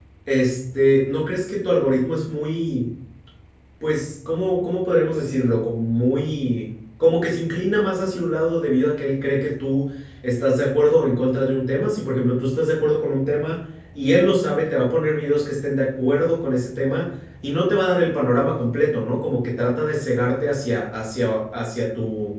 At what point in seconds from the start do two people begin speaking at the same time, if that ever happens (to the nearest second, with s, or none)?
none